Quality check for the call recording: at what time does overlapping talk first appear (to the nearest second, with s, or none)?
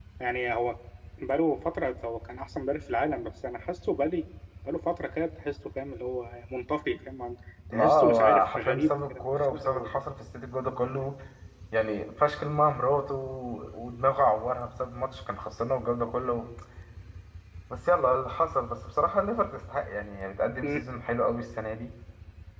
8 s